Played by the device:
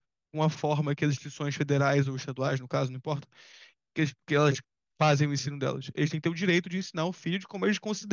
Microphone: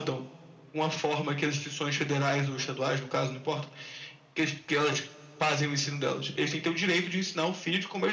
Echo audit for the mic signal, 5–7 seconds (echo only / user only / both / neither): echo only